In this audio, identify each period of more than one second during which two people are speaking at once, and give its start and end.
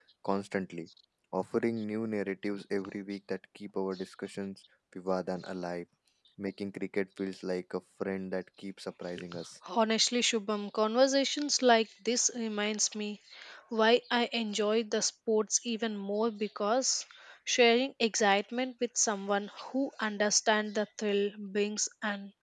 none

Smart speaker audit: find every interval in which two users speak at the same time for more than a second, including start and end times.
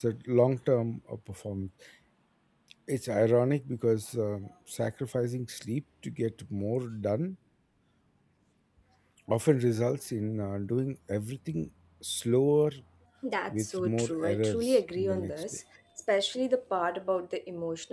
13.5-15.4

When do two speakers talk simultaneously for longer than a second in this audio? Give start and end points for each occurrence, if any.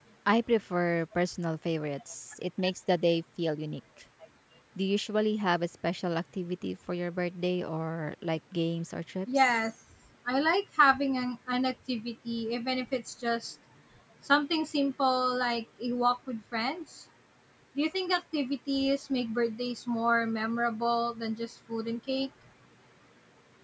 none

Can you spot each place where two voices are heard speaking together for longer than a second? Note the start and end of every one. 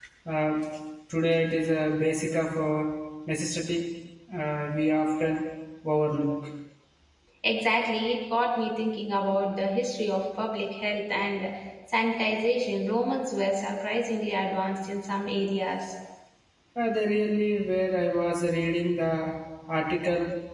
none

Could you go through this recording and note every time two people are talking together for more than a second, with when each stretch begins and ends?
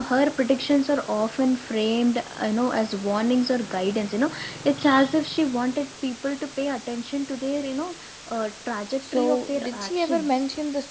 9.0-10.4

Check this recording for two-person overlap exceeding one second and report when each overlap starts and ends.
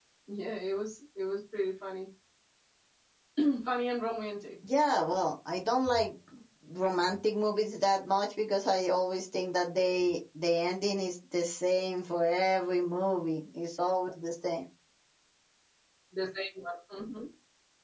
none

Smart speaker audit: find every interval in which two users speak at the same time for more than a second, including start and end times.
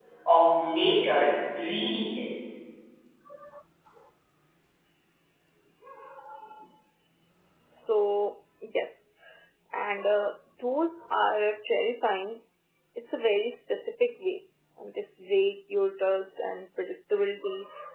none

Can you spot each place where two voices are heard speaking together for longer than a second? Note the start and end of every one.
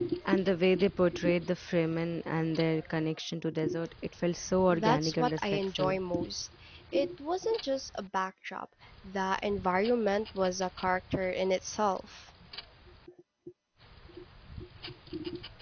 4.7-6.0

